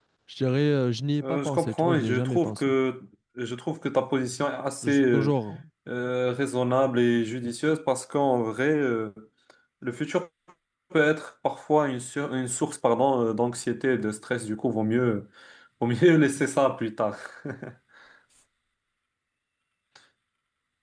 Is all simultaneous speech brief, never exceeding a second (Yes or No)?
No